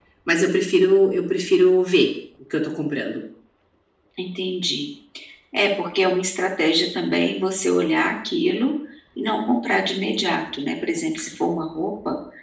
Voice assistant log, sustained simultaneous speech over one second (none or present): none